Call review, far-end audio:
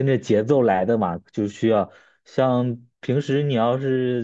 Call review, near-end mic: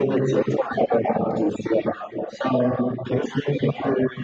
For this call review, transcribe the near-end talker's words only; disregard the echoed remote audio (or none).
none